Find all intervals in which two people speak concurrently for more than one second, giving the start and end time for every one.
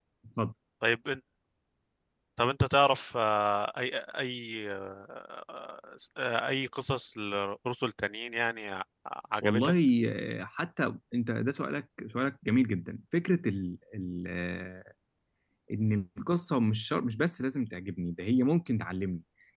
none

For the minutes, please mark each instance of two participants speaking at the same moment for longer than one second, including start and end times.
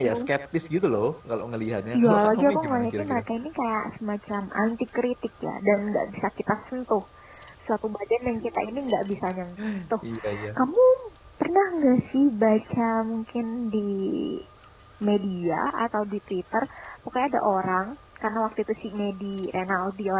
2.0-3.2

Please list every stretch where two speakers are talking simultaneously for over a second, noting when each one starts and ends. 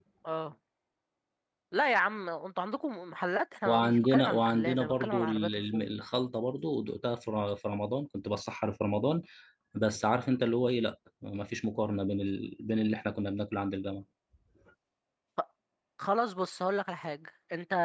3.6-5.8

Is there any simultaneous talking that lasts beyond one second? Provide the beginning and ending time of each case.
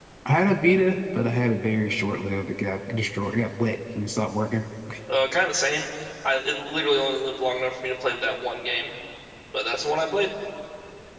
none

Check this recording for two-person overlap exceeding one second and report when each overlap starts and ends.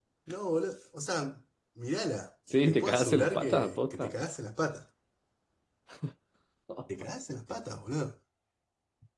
2.7-4.1

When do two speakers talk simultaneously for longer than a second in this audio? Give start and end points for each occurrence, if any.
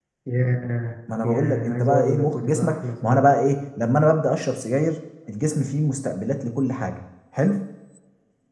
1.2-3.3

